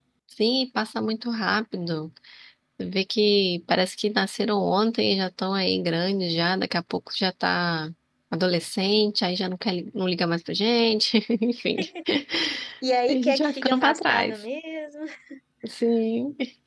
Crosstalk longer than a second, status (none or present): present